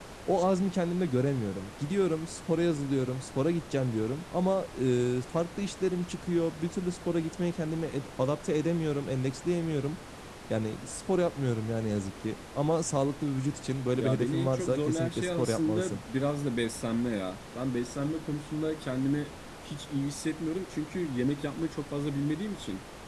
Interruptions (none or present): present